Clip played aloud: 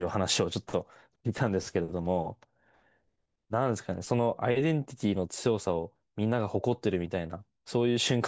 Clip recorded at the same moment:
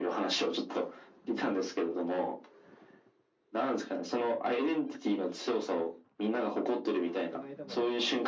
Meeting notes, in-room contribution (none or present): present